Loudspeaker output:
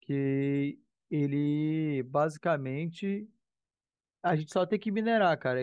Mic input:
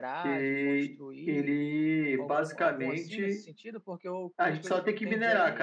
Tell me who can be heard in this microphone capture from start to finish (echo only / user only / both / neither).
both